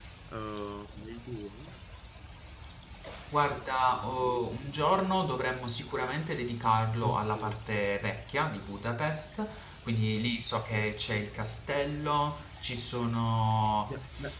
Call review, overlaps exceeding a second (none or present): none